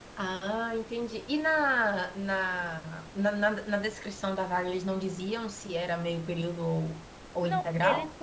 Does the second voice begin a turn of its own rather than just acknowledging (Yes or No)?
Yes